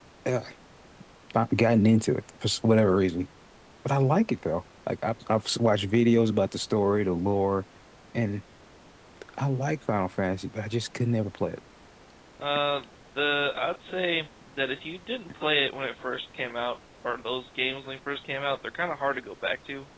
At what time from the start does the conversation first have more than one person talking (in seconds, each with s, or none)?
none